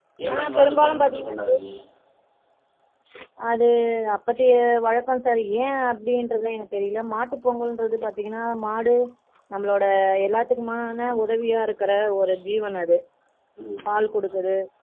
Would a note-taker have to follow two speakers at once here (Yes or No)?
Yes